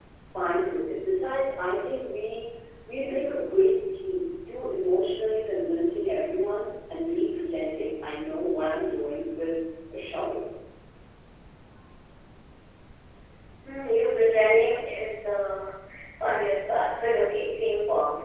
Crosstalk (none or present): none